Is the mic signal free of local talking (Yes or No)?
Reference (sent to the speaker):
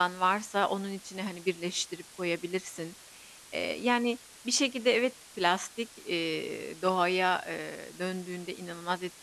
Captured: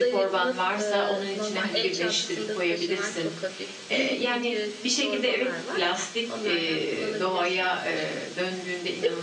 No